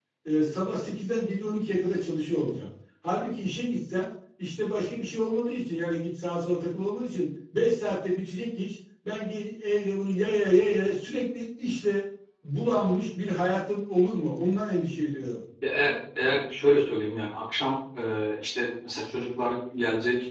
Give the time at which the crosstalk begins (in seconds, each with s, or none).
none